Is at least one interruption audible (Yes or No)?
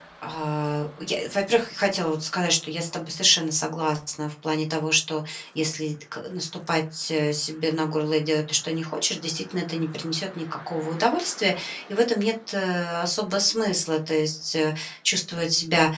No